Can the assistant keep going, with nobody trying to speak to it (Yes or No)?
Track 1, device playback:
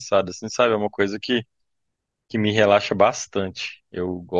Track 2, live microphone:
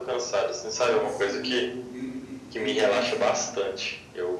No